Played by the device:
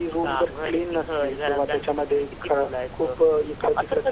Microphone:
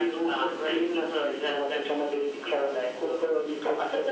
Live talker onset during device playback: none

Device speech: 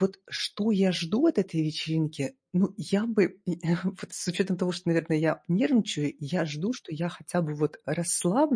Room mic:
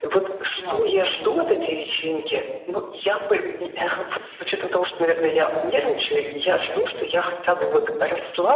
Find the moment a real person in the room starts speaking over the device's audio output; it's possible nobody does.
0.5 s

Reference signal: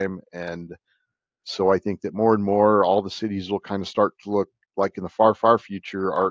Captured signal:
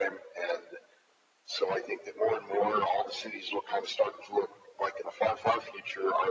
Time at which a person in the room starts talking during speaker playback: none

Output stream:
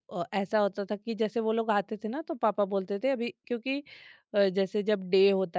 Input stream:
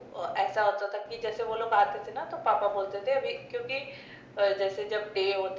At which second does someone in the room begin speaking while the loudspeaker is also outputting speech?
none

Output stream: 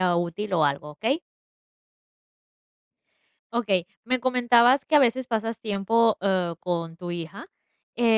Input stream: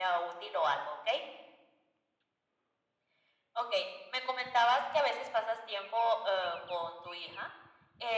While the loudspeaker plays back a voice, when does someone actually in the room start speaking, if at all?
none

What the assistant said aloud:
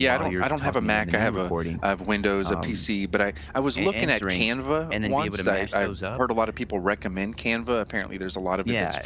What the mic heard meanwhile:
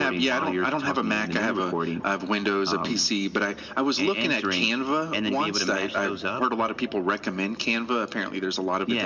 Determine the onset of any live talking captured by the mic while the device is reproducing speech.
none

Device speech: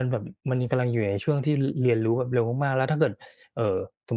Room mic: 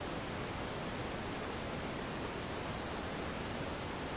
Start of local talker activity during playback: none

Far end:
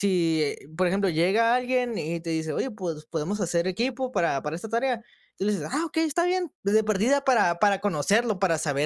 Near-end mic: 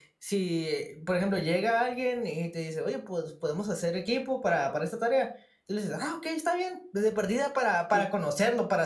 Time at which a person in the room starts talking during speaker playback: 7.9 s

